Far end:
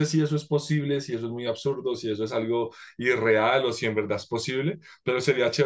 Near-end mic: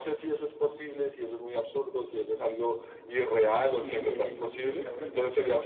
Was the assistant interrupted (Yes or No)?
Yes